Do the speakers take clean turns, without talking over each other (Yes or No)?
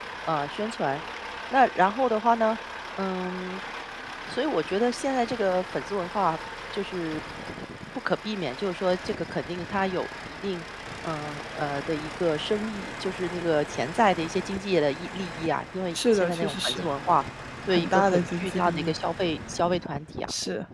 No